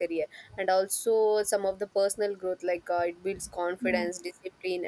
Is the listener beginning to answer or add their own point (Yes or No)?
No